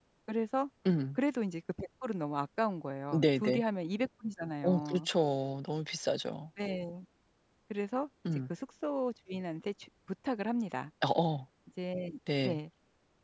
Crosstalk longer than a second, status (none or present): none